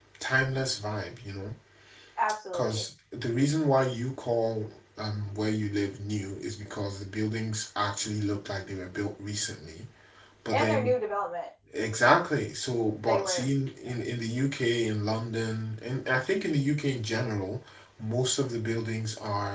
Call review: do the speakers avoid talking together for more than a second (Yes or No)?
Yes